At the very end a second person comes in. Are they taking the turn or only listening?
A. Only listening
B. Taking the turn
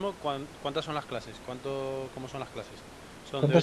B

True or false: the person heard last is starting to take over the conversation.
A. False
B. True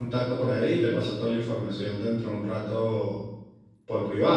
B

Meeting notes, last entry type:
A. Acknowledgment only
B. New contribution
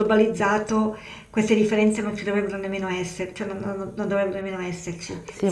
B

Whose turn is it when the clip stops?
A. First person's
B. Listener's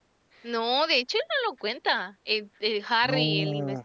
A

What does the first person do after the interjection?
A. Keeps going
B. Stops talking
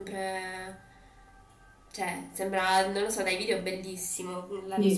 B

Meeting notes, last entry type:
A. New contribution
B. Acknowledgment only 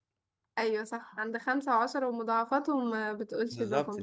A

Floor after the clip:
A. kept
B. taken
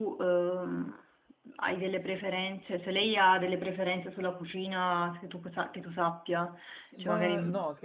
B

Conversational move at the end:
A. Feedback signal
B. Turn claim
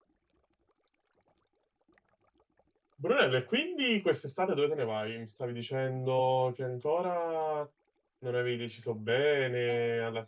A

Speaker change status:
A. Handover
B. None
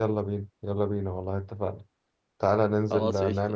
B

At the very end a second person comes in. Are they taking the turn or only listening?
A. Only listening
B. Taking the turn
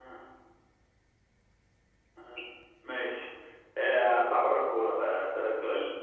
A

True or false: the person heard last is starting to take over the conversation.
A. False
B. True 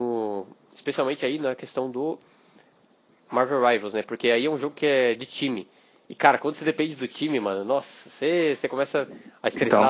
A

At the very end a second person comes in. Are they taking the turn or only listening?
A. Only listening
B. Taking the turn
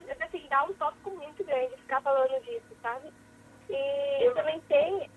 A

